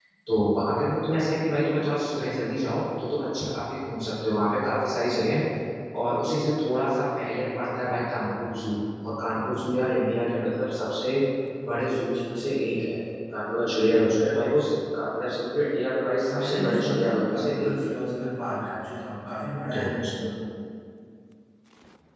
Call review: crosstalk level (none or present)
present